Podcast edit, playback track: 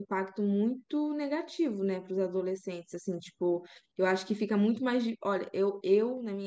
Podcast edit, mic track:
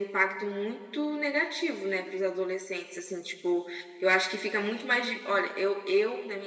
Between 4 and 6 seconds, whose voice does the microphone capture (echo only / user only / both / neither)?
echo only